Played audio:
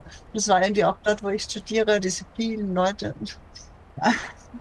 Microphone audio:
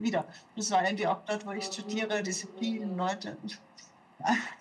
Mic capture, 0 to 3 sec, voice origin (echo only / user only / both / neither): both